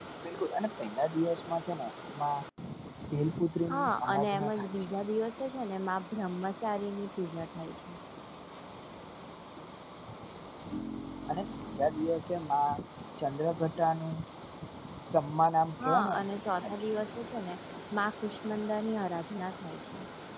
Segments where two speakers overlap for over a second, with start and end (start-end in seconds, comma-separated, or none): 3.7-4.9